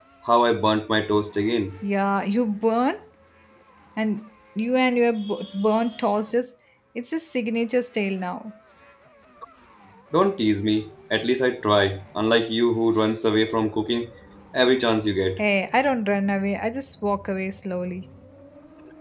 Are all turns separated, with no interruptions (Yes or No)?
Yes